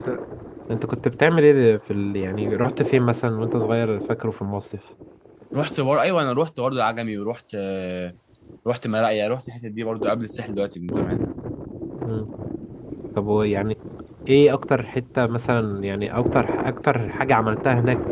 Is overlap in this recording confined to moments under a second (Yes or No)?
Yes